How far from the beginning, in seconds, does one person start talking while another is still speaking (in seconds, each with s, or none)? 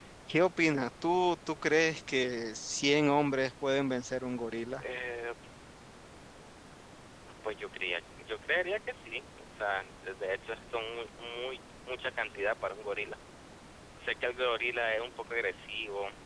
none